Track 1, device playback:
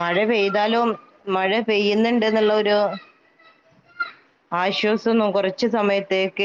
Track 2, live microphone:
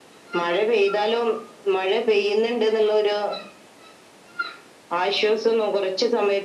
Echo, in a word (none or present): present